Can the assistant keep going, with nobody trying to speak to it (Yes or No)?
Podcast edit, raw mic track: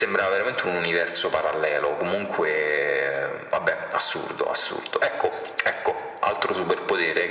Yes